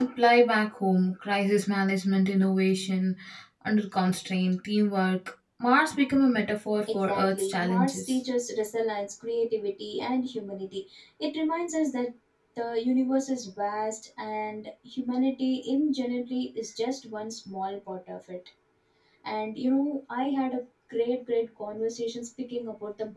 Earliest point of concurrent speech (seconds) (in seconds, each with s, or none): 6.9 s